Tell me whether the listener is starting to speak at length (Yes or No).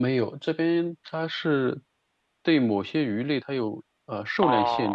Yes